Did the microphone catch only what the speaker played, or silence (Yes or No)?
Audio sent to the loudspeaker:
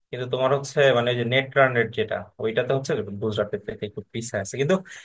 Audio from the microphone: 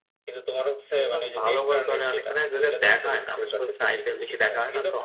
No